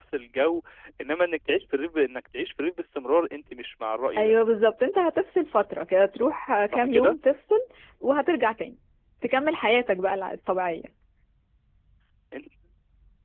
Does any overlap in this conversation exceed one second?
No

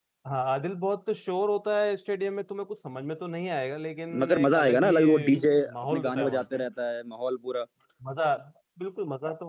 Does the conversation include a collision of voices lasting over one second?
Yes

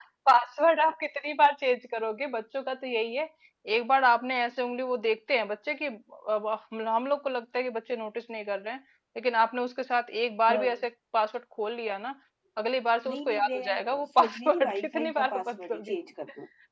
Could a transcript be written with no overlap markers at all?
No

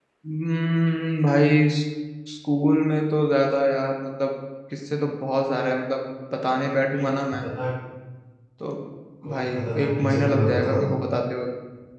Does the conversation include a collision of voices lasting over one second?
Yes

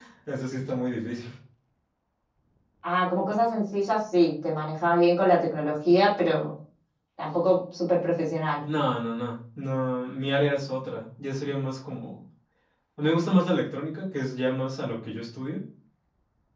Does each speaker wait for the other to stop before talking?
Yes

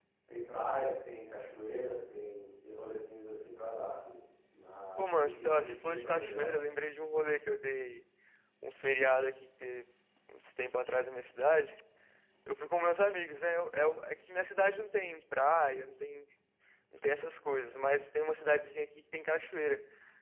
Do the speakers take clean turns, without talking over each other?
No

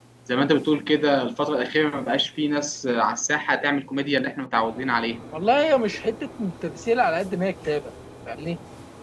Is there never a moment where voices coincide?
Yes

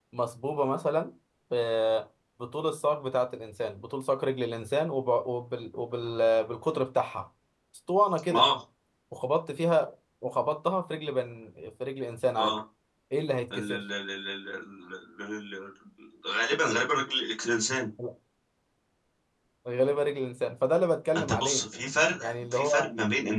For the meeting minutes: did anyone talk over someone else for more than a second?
No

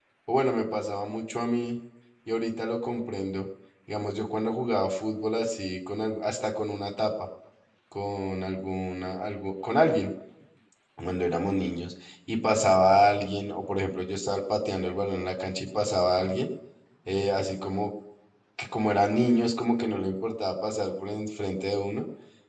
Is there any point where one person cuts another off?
No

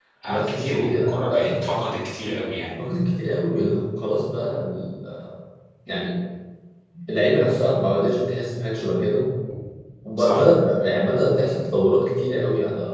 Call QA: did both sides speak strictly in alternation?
No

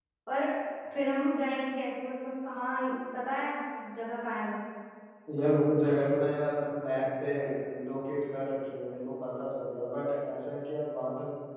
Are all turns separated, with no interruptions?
Yes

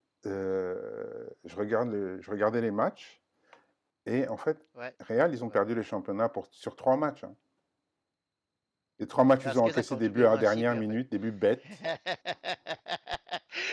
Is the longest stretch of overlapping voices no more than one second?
No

